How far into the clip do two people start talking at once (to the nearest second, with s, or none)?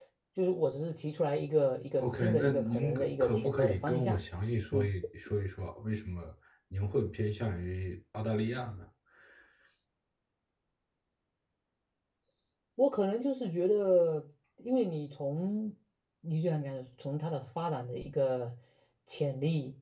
2 s